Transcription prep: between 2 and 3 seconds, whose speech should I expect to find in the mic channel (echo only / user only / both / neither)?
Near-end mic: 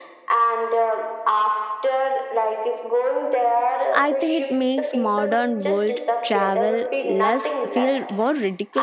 echo only